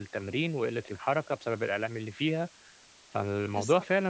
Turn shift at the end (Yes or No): No